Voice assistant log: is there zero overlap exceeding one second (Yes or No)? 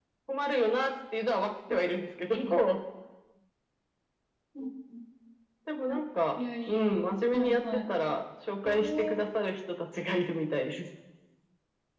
No